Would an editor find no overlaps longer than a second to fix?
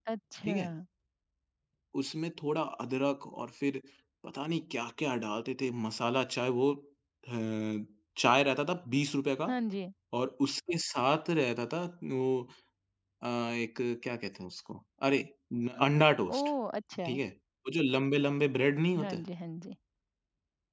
Yes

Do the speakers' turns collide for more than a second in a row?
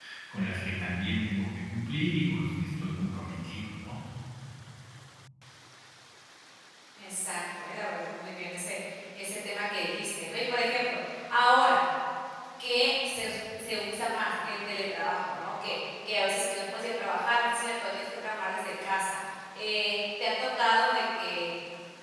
No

